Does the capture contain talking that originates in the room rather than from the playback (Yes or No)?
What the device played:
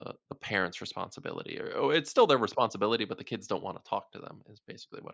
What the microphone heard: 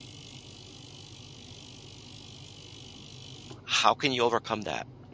Yes